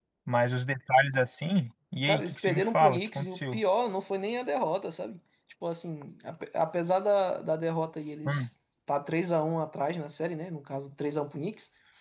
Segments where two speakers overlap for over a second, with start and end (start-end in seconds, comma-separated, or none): 2.0-3.6